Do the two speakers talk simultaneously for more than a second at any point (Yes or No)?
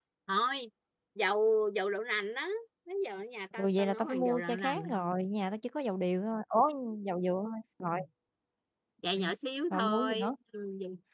Yes